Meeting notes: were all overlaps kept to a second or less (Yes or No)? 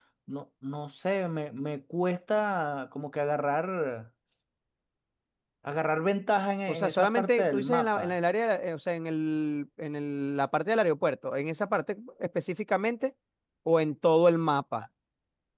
No